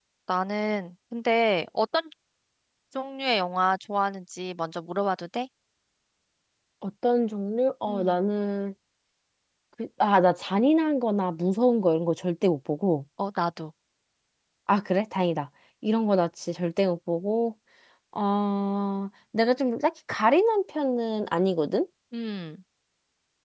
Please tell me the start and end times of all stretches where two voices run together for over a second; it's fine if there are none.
none

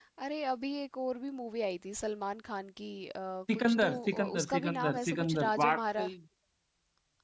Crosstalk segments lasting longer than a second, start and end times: 3.5-6.1

